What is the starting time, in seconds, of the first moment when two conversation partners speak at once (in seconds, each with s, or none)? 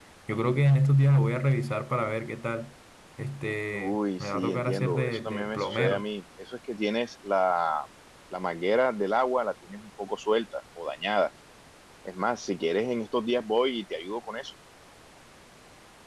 3.7 s